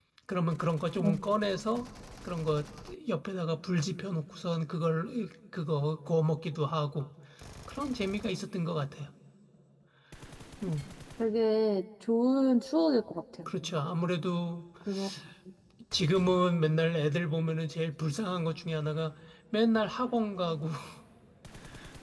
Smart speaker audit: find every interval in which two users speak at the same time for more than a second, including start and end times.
none

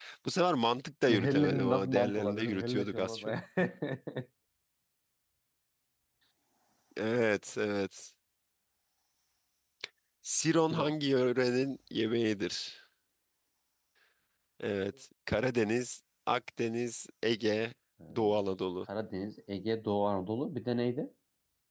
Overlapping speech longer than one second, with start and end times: 1.1-3.2

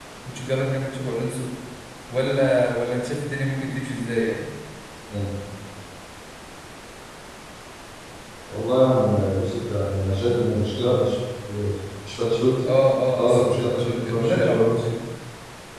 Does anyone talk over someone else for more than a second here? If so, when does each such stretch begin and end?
13.1-14.8

